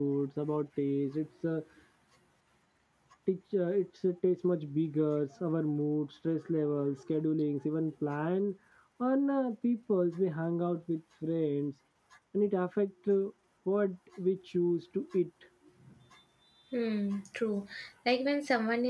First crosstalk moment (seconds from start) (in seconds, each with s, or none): none